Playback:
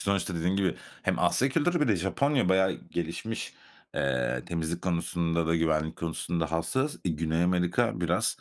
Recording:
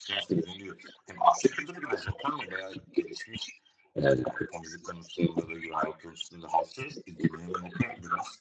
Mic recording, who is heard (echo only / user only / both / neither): echo only